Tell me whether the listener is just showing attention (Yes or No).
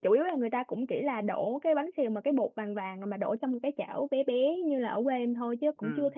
Yes